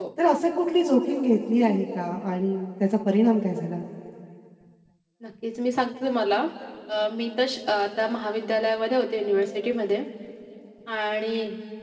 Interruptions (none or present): none